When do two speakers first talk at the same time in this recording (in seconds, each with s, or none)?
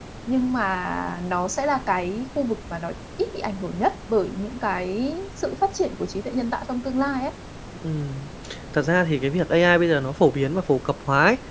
none